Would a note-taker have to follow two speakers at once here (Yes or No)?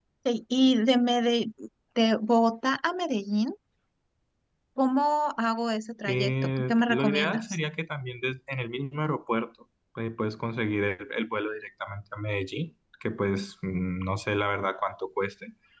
Yes